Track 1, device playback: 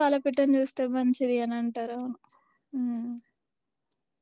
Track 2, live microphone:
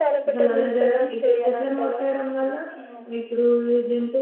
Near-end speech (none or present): present